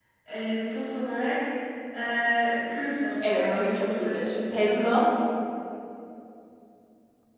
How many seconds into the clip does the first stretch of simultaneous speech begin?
3.2 s

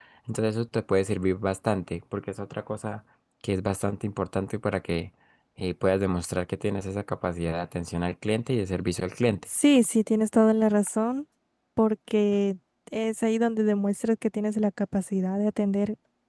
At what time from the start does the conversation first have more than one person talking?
none

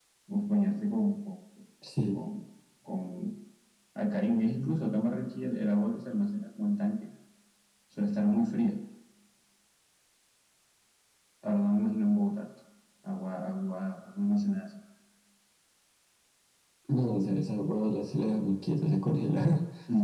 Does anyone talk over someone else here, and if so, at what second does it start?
none

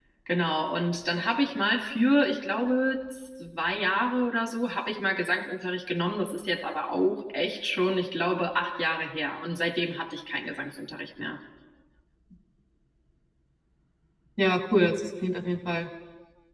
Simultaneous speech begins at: none

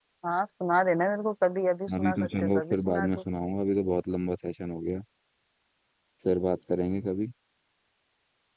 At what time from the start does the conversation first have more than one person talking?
1.9 s

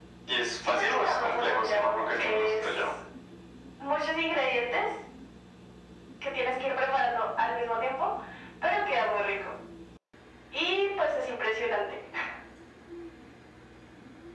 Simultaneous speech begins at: 0.7 s

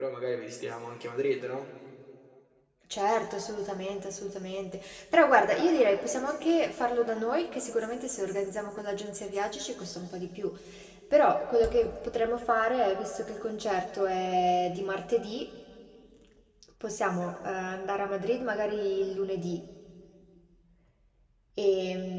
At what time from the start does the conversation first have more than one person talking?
none

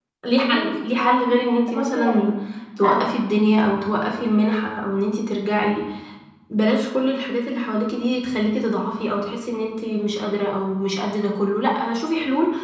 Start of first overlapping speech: 0.5 s

